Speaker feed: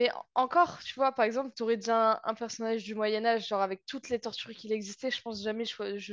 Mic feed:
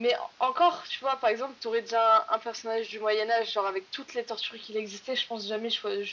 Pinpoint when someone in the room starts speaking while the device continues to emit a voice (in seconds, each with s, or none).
none